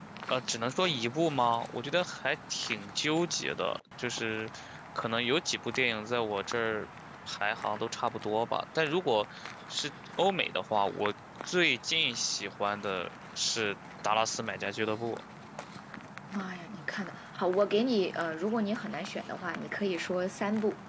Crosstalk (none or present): none